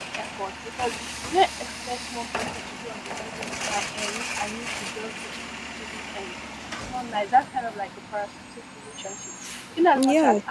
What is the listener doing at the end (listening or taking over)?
listening